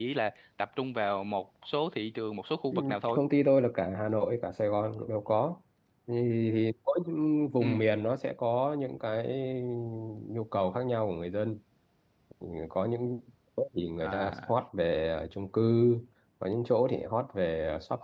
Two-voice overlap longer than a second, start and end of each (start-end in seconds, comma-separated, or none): none